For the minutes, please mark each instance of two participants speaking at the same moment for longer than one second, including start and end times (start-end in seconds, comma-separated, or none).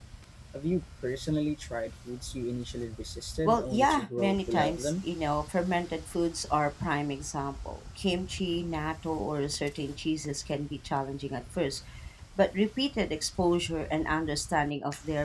3.4-5.0